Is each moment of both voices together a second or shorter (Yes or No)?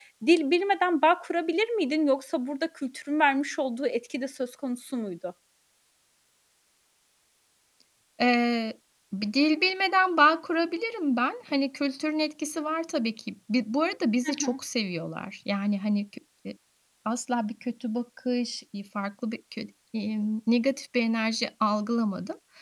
Yes